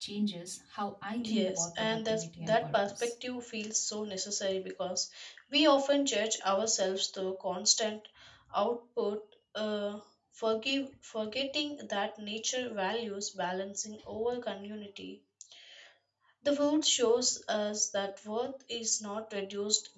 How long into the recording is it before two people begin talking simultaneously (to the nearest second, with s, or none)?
1 s